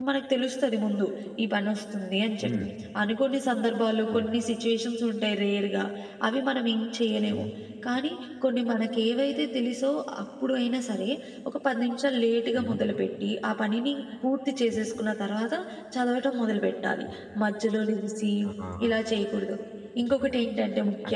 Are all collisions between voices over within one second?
Yes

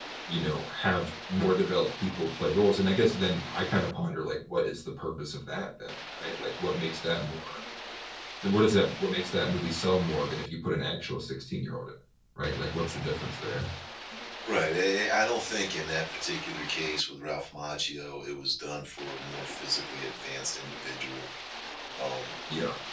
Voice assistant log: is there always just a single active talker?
Yes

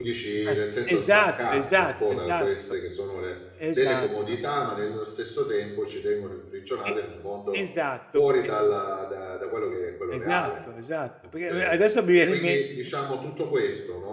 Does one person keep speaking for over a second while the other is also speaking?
Yes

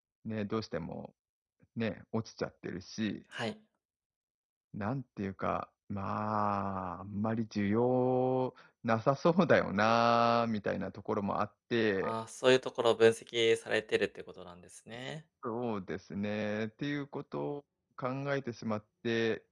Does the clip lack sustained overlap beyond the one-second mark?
Yes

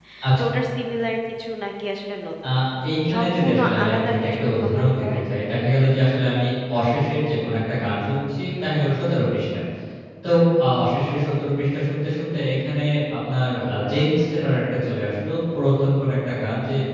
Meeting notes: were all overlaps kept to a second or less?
No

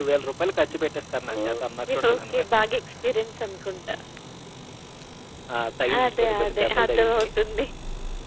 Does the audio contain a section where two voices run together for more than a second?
Yes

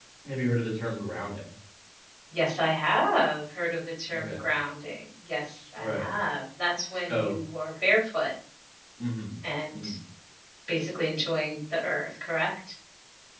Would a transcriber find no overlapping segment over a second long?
Yes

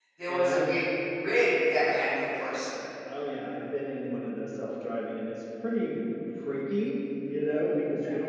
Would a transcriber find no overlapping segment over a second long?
Yes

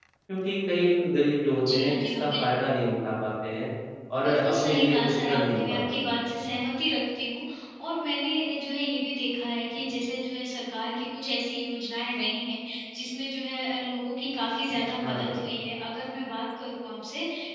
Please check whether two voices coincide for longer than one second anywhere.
Yes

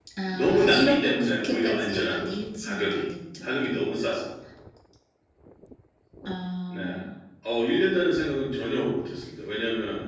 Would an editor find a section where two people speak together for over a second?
Yes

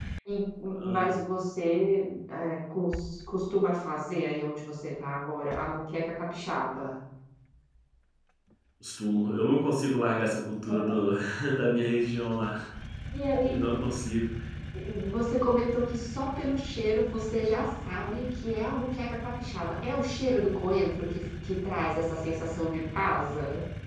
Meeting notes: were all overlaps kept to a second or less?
Yes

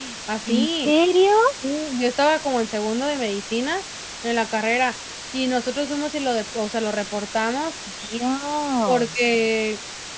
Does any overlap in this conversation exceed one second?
No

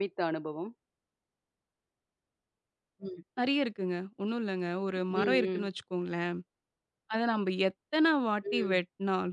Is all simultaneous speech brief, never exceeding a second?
Yes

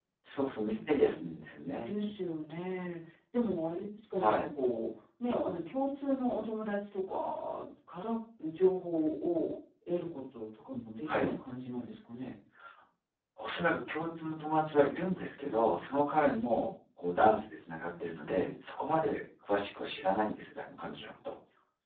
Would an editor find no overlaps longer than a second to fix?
Yes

